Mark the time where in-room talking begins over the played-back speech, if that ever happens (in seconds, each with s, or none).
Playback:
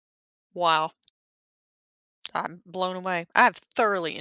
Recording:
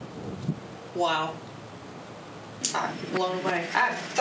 none